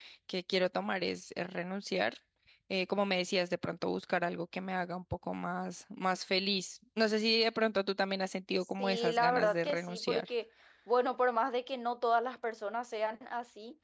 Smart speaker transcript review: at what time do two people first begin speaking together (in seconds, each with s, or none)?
8.8 s